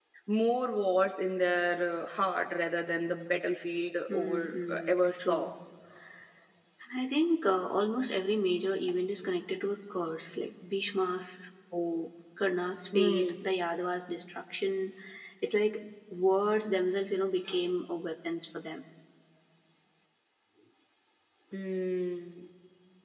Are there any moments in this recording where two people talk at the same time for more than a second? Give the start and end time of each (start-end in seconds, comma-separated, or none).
4.1-5.5